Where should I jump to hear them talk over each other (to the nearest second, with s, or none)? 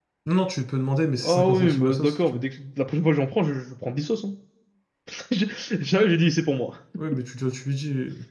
1 s